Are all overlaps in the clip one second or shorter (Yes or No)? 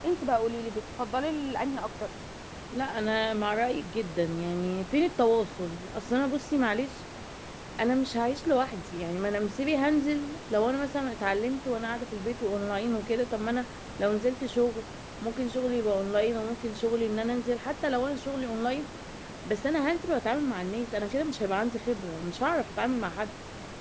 Yes